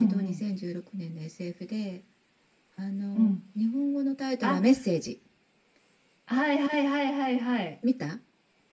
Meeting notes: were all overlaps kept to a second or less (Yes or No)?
Yes